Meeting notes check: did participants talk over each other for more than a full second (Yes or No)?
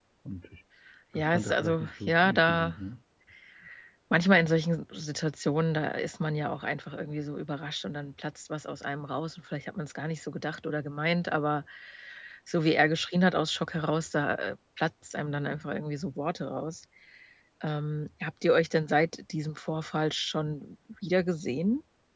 Yes